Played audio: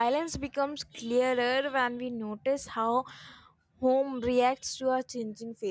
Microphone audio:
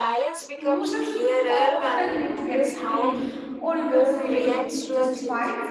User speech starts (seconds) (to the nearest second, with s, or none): 1 s